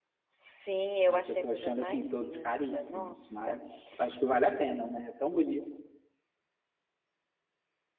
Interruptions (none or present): present